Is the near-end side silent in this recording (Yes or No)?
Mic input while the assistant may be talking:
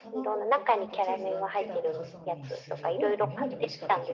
No